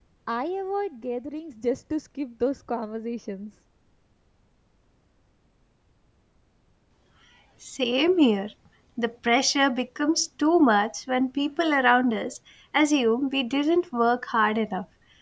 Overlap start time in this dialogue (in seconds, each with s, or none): none